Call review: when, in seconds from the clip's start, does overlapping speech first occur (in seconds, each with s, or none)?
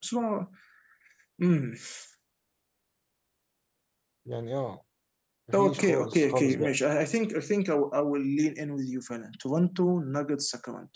5.5 s